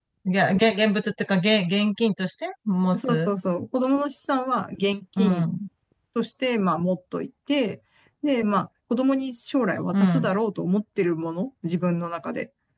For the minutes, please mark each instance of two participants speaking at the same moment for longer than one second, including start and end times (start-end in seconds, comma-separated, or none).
none